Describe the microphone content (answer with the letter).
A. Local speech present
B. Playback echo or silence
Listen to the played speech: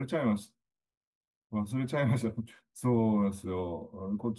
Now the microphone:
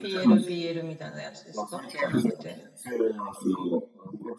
A